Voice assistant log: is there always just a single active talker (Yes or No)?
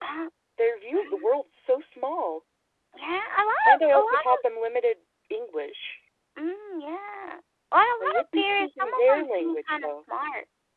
No